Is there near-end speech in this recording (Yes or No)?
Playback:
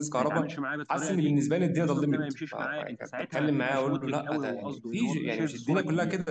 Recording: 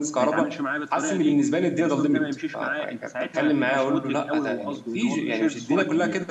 No